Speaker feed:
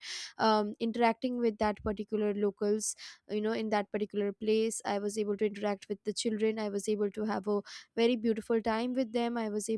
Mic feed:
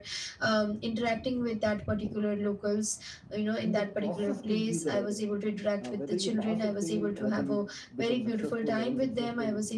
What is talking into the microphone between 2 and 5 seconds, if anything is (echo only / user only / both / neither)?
both